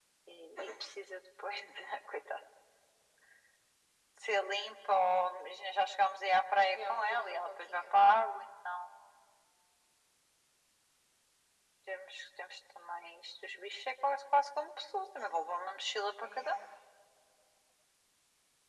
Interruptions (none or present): present